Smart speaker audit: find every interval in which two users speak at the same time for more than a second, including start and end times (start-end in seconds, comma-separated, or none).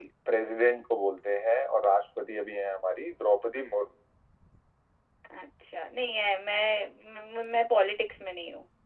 none